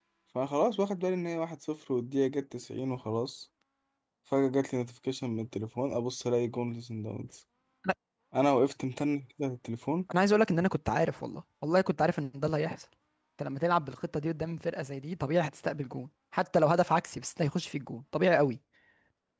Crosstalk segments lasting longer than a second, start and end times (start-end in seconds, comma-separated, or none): none